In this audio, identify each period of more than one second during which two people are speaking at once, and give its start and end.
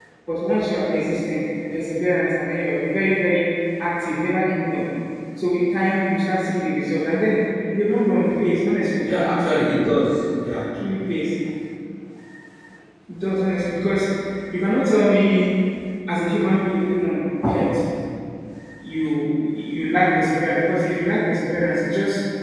none

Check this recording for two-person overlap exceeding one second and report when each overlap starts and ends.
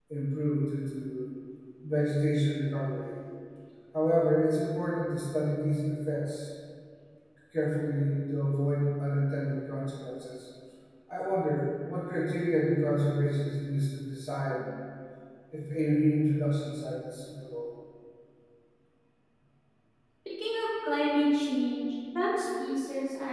none

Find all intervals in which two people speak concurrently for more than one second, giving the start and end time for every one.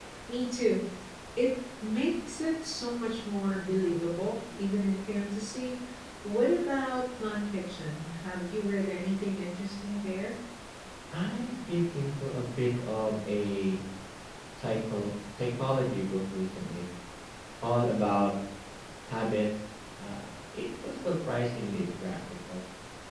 none

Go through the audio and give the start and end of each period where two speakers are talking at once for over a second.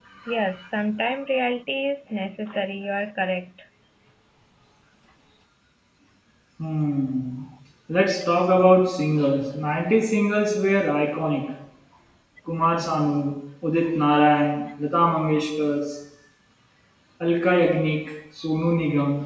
none

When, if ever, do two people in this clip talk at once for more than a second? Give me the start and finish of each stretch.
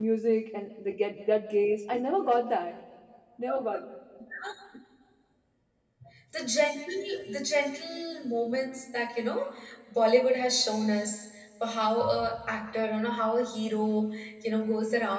none

